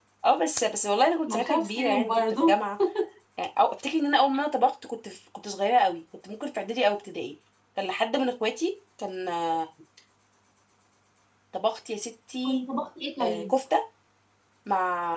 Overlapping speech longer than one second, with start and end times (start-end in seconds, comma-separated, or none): 1.3-2.5